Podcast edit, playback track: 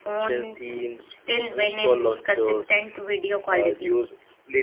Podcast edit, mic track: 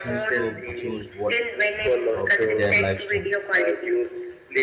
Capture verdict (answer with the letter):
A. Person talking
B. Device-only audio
A